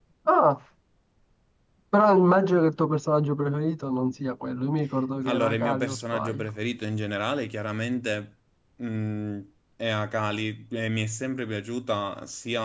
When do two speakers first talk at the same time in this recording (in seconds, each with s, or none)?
5.2 s